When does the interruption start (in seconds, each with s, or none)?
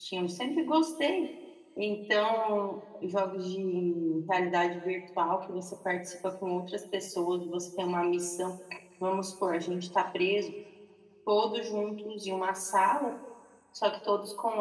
none